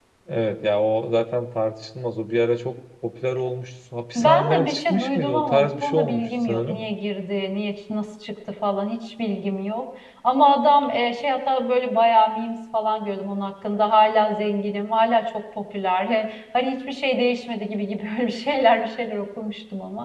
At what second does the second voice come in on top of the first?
4.2 s

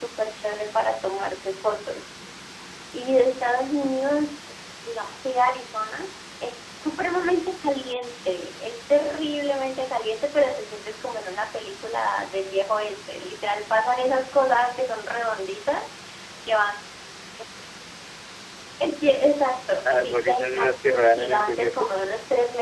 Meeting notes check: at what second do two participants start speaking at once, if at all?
19.8 s

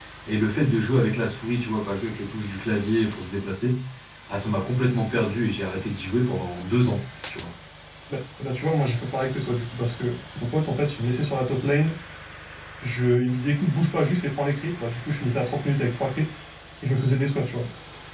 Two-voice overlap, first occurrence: none

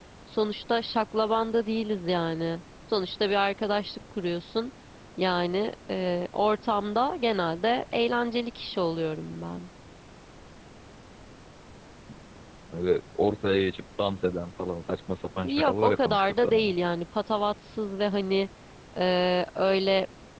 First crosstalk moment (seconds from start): 15.4 s

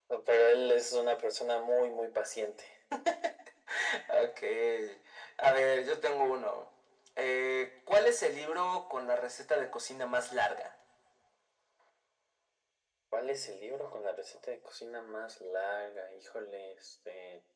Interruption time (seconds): none

